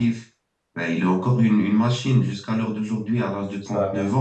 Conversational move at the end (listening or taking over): listening